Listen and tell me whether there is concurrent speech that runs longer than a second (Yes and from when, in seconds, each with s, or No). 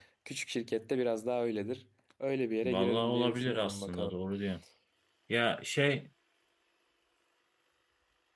Yes, from 2.6 s